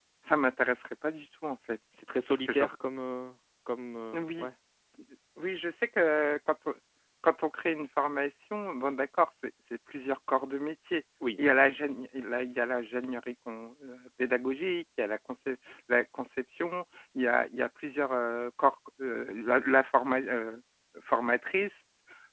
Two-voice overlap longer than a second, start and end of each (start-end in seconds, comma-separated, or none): none